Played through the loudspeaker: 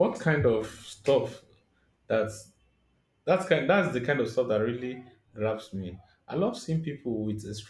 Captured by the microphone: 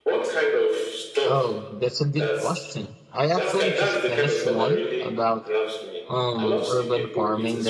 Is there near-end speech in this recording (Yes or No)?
Yes